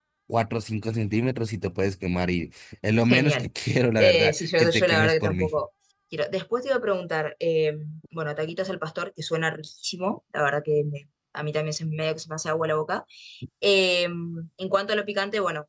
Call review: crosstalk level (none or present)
present